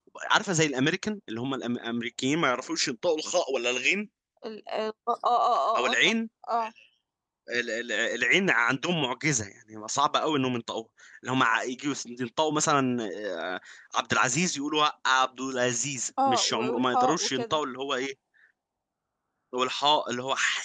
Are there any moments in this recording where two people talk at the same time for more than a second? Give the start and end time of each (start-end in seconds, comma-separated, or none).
16.3-17.6